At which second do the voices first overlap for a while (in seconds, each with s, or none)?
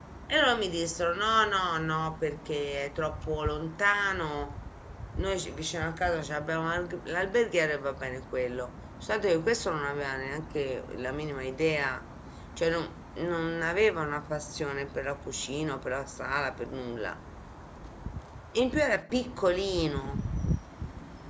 none